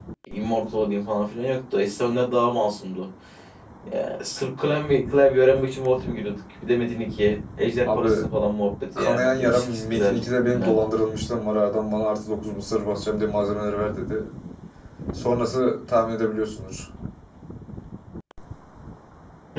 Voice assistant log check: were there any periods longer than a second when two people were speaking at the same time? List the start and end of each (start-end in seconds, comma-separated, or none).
9.0-10.8